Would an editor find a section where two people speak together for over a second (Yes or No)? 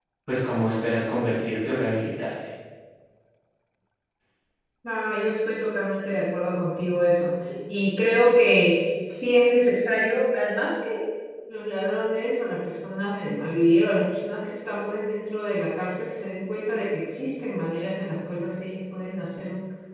No